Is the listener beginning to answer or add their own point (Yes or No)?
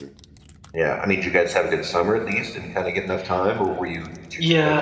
Yes